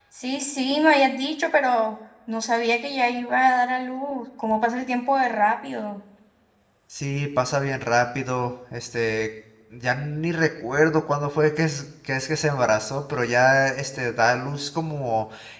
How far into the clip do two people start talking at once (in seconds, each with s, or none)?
none